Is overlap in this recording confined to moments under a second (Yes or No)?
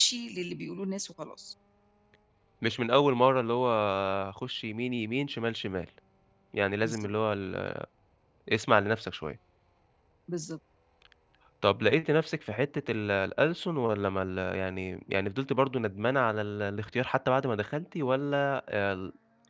Yes